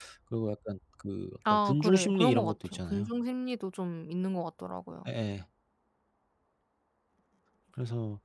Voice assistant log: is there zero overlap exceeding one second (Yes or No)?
No